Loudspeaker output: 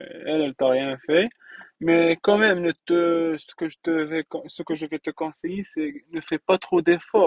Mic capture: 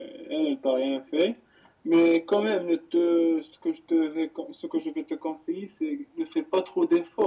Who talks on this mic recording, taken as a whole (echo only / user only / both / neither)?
echo only